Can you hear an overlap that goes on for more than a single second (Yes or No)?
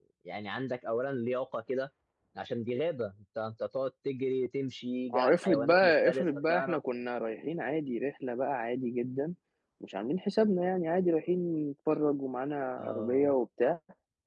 Yes